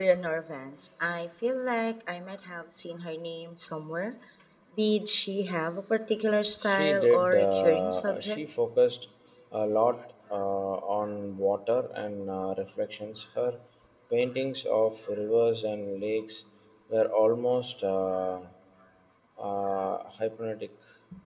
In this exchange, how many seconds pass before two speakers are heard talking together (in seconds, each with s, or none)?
6.6 s